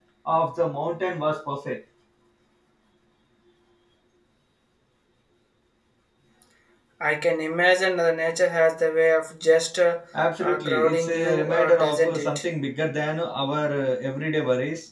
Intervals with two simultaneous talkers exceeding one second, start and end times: 10.4-12.4

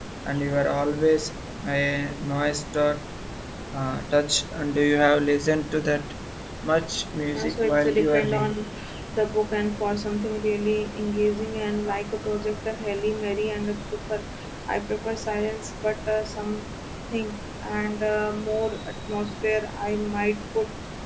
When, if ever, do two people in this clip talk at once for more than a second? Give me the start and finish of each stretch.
7.3-8.5

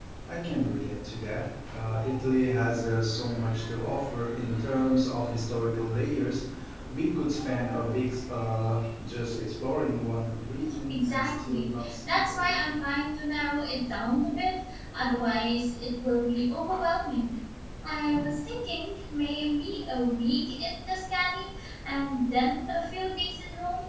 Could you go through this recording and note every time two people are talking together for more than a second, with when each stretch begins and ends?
10.9-12.8

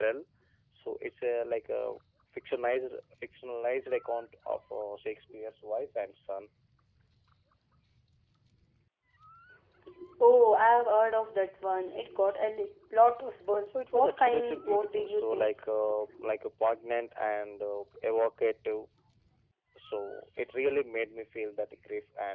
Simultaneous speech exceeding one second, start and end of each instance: 13.7-15.5

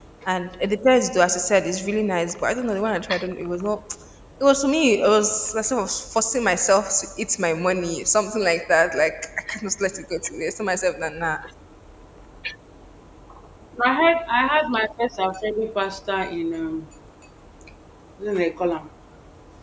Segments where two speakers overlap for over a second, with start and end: none

